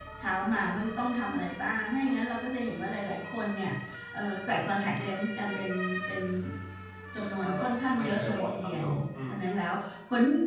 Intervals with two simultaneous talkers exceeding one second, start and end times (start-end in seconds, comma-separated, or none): 7.2-8.9